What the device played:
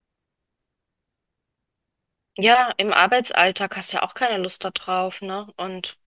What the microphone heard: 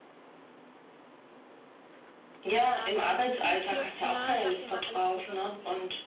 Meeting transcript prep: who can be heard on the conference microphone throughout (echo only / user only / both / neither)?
both